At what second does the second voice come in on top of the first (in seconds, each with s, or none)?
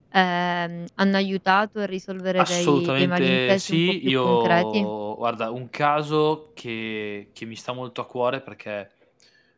2.4 s